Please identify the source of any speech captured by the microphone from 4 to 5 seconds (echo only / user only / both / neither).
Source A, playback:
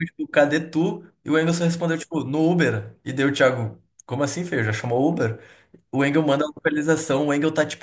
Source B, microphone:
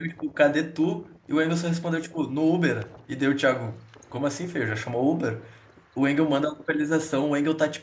echo only